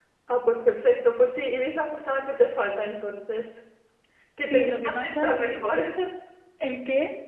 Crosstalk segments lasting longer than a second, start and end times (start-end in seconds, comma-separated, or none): 4.4-5.6